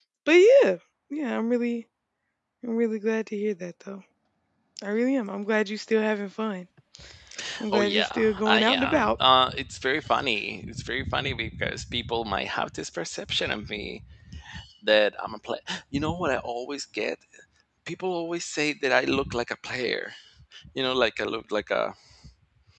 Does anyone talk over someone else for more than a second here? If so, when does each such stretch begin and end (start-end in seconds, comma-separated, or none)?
7.7-9.2